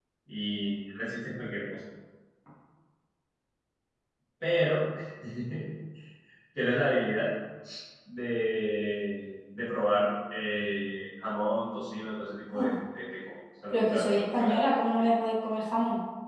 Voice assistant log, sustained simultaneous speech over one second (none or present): present